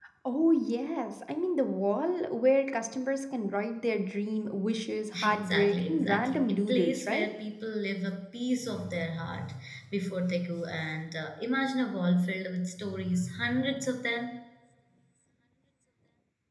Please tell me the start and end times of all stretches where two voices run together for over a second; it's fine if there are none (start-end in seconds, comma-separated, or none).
5.2-7.3